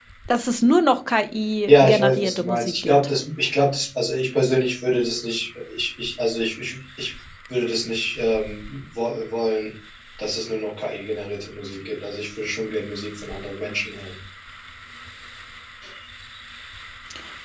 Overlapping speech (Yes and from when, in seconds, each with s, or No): Yes, from 1.7 s